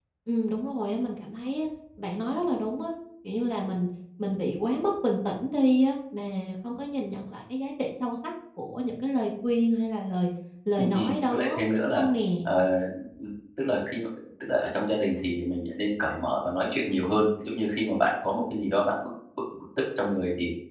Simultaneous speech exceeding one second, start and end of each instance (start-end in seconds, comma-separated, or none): 10.8-12.0